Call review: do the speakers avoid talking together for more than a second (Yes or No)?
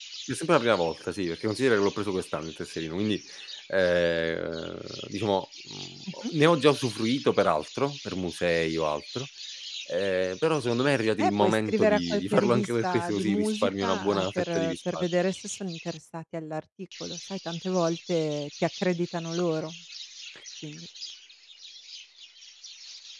No